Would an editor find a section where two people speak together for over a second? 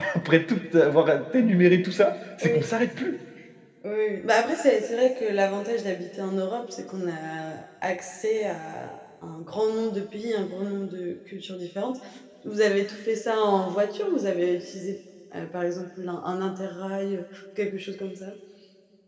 No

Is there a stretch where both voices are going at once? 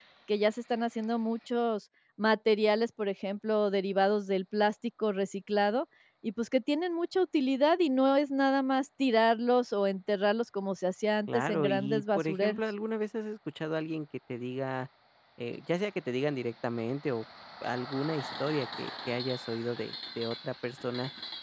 Yes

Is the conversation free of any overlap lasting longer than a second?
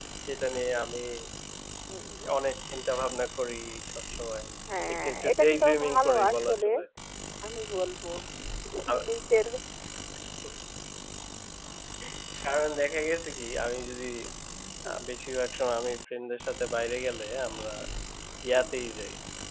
No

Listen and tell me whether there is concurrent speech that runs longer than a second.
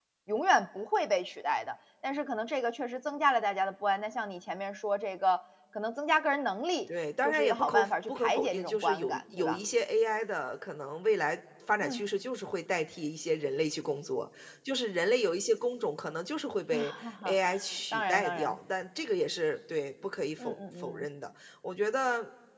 Yes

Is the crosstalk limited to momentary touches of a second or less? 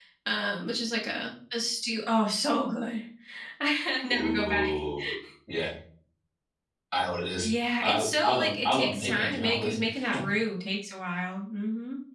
No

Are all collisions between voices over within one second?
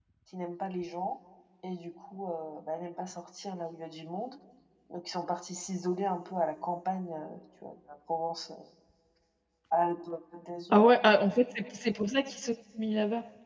Yes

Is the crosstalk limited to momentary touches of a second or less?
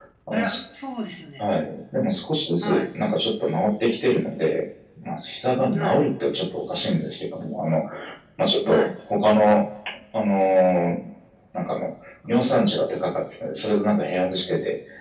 Yes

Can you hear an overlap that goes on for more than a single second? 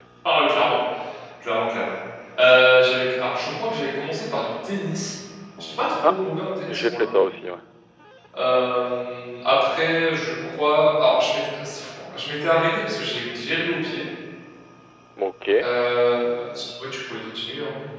No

